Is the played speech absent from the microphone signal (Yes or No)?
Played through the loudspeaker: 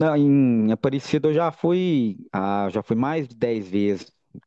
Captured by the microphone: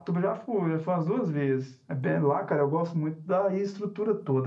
Yes